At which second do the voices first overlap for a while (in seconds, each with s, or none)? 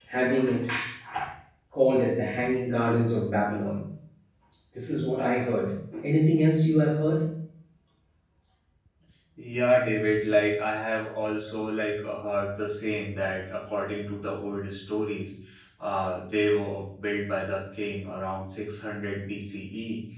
none